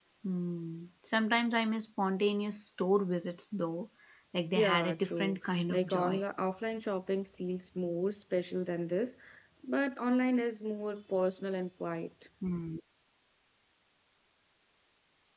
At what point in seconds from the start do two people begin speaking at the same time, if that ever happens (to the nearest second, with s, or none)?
5 s